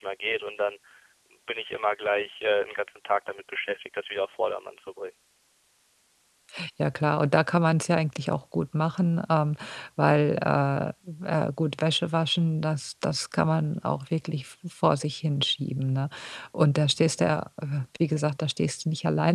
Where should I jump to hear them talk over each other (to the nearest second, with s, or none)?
none